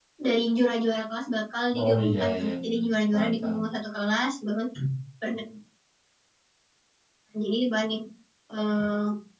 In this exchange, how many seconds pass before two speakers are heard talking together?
1.7 s

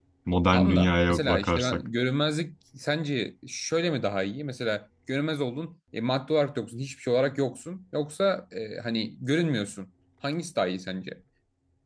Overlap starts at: 0.5 s

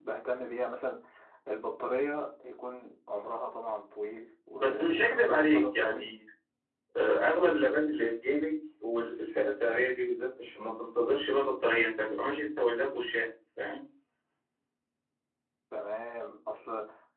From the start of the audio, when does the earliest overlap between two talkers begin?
4.6 s

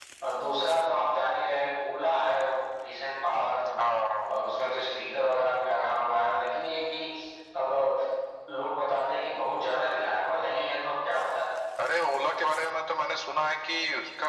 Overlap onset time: none

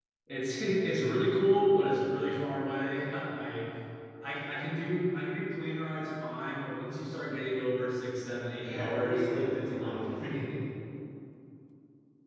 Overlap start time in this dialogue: 8.6 s

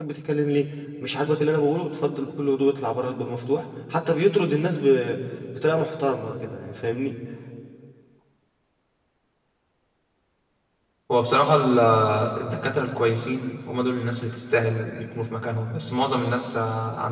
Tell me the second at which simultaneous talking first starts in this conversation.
none

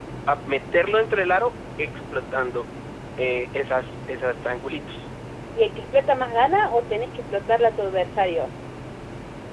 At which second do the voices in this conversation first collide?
none

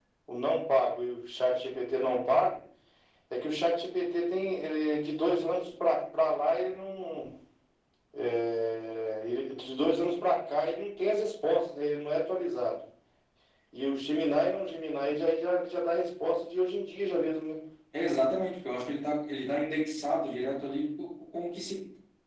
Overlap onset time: none

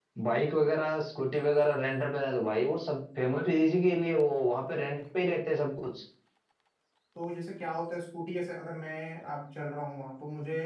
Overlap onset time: none

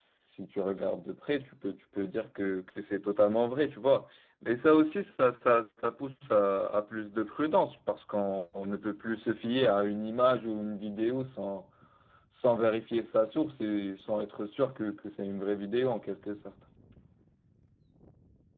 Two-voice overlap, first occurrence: none

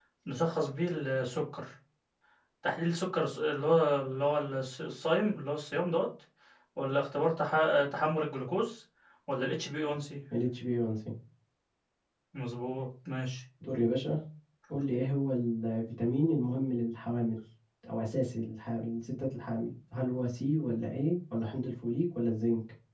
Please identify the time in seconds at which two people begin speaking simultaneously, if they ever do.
none

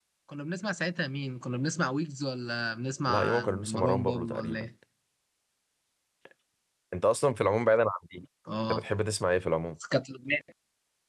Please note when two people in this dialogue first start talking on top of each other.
3.1 s

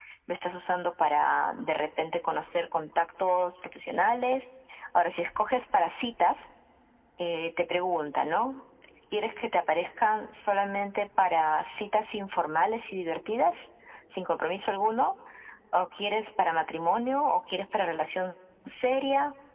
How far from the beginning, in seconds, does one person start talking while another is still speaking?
none

